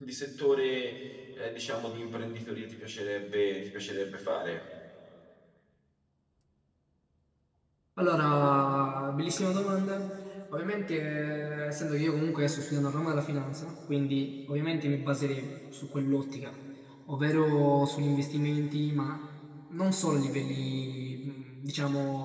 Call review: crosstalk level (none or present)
none